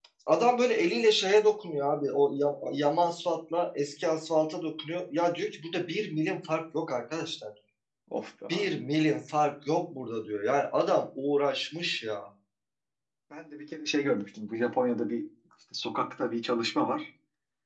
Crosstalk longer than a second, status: none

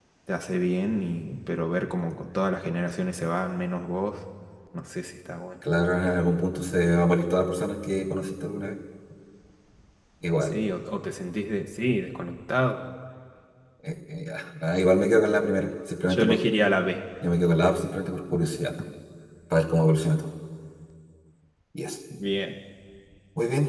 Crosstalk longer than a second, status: none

